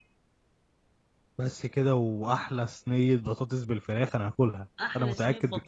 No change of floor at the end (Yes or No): No